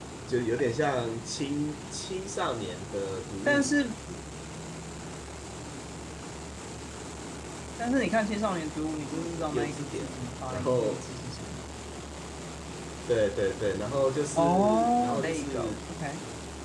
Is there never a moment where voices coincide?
No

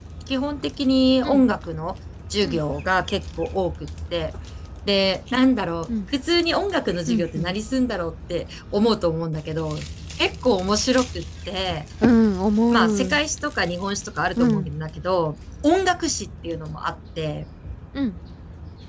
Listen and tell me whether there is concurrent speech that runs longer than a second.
No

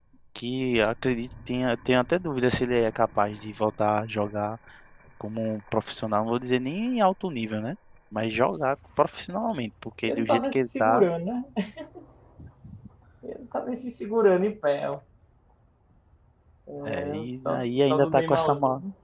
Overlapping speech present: Yes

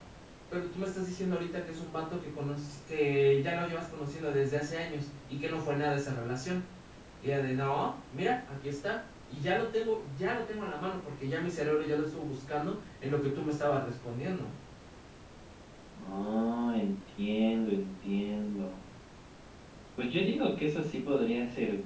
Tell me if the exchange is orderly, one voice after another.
Yes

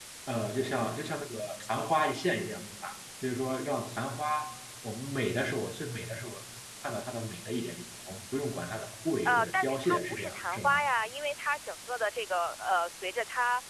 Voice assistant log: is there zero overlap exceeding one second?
No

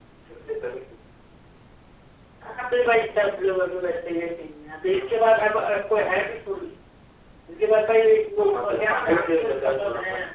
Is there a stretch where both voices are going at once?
Yes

